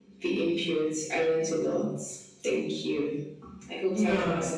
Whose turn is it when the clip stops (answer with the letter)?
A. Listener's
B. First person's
A